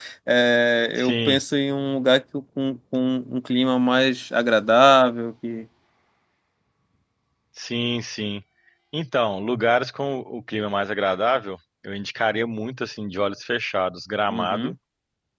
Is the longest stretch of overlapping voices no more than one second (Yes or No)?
Yes